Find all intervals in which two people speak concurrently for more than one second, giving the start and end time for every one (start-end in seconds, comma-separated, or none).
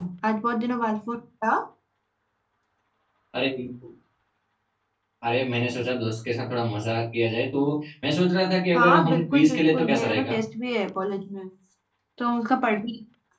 8.8-10.4